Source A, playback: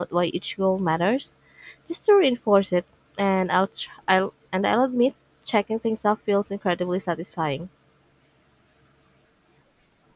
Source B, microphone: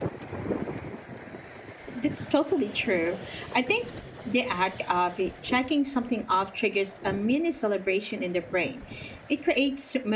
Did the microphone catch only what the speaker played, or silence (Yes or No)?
No